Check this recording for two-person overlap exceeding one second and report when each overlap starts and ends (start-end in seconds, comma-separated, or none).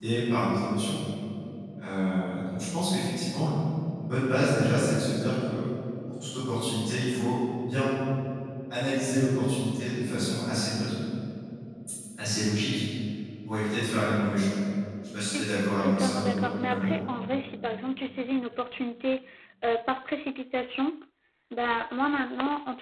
15.3-16.9